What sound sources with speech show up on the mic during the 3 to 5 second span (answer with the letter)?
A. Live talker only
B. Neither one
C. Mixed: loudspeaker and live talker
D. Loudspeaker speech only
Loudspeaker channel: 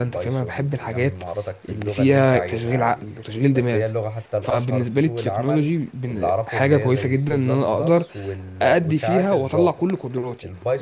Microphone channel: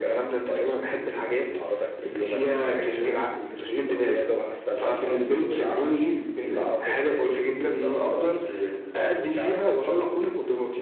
D